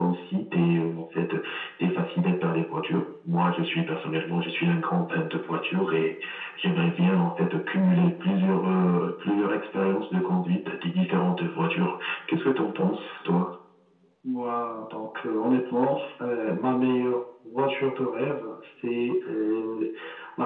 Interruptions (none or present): none